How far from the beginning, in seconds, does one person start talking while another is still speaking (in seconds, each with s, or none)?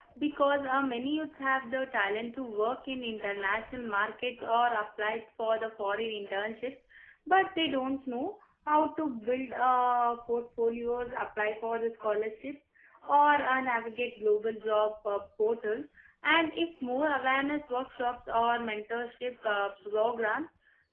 none